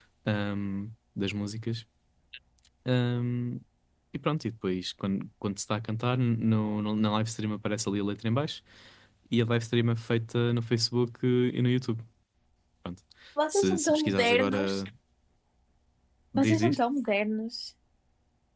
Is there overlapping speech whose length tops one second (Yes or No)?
Yes